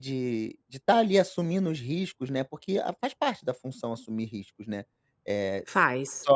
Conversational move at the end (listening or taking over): listening